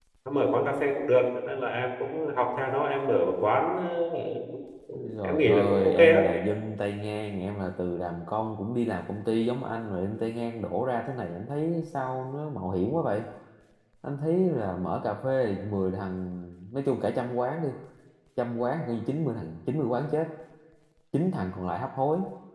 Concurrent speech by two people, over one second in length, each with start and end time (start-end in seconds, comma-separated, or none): 4.9-6.2